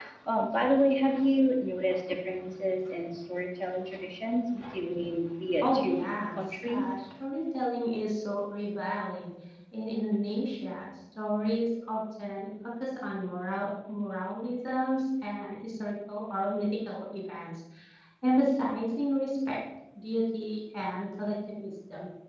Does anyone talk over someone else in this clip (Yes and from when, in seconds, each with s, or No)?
Yes, from 5.6 s